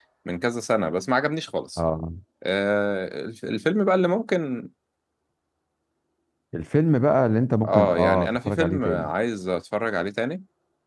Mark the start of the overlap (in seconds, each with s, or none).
7.6 s